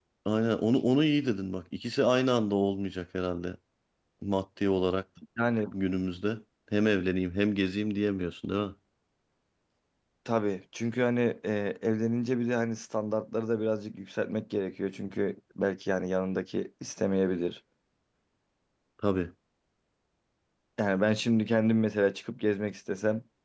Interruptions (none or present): none